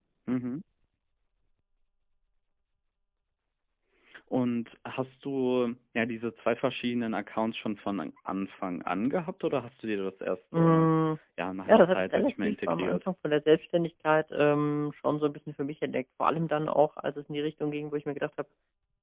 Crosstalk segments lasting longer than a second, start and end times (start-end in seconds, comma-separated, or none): 11.7-13.0